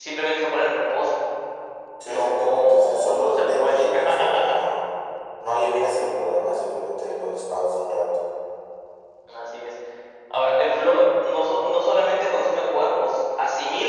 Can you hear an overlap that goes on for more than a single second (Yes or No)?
Yes